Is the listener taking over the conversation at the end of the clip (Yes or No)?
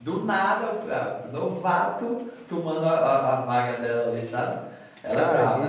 Yes